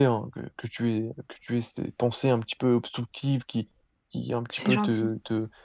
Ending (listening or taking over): listening